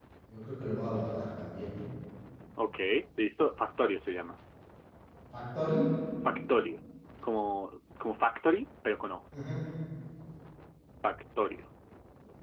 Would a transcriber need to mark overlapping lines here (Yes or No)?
No